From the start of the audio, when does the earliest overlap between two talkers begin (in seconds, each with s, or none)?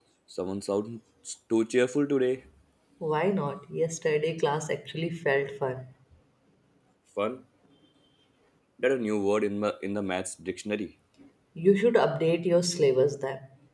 none